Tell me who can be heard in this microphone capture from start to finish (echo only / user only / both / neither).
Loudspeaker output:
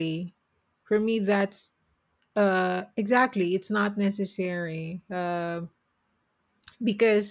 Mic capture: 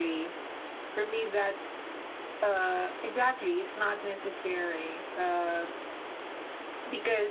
echo only